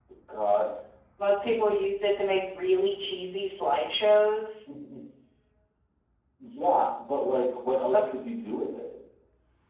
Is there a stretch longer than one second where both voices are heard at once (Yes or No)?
No